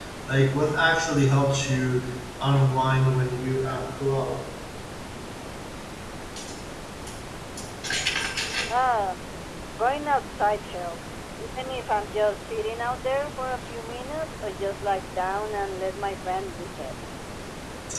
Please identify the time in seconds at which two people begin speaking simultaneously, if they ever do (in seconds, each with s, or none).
none